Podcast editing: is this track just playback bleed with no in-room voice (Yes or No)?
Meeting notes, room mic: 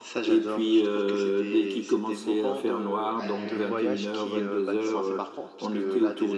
No